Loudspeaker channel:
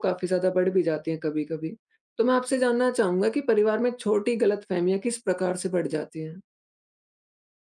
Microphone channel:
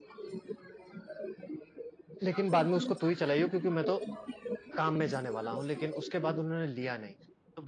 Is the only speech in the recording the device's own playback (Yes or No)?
No